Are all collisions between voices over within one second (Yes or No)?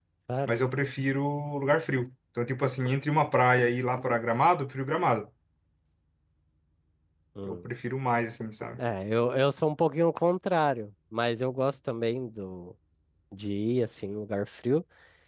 Yes